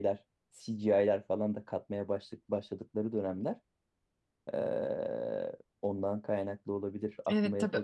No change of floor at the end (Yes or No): No